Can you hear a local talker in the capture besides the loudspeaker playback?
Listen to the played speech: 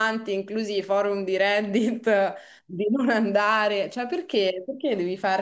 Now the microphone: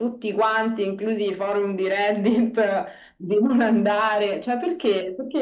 No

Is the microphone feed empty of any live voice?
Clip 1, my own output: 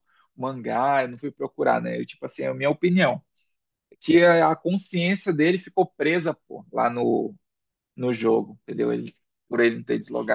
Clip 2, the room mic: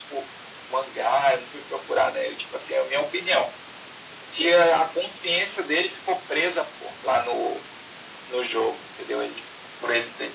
Yes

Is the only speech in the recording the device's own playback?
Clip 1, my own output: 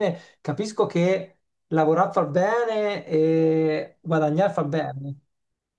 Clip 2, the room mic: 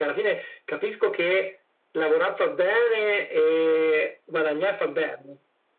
Yes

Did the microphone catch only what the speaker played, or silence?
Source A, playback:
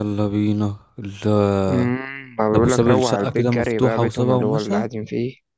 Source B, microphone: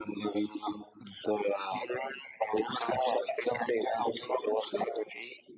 Yes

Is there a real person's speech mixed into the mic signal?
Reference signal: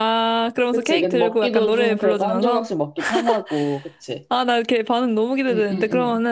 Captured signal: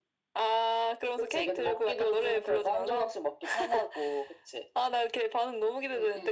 No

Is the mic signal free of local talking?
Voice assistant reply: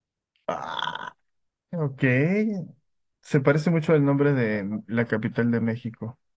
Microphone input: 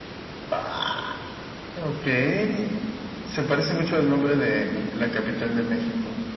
Yes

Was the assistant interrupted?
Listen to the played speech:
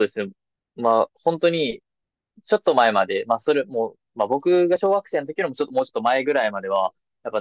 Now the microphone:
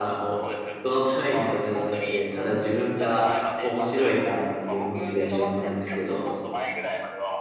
Yes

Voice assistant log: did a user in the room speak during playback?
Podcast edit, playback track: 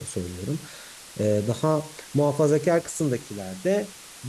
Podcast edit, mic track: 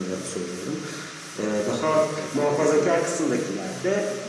Yes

